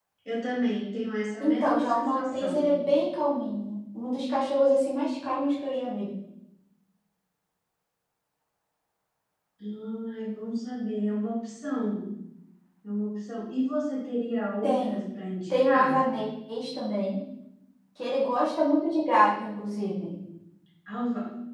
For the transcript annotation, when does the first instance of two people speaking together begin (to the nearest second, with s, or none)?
1 s